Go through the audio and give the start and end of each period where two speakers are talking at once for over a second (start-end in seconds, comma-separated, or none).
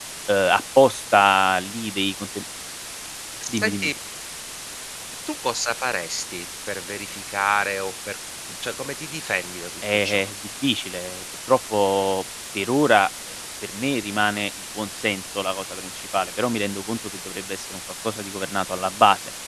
none